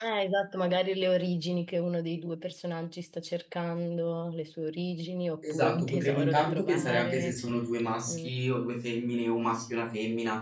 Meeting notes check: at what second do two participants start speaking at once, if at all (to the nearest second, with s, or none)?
5 s